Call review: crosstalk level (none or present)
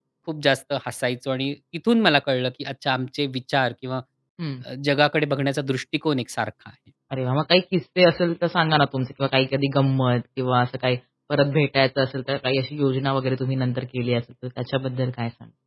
none